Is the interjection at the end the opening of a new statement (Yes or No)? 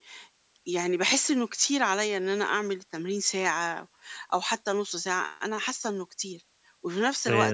No